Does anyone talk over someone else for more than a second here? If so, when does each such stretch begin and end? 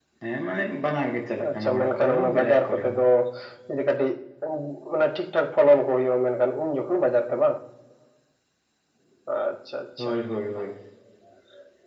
1.5-3.0

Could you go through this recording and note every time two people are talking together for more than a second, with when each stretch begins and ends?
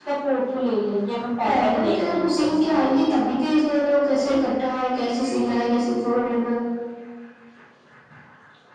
1.4-2.8

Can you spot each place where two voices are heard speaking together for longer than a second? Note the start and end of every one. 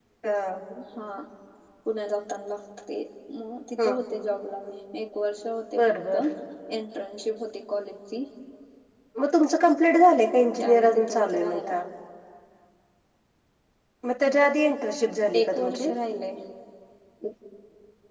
10.2-11.6

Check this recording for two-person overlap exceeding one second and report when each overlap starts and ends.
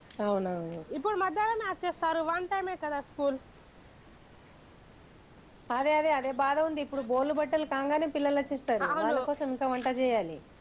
none

